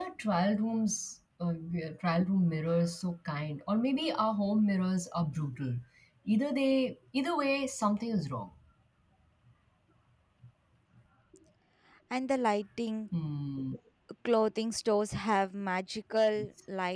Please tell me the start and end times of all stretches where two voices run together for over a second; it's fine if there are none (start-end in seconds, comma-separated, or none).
none